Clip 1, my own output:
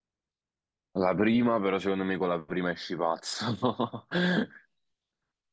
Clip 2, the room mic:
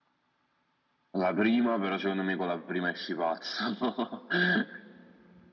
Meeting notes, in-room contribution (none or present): none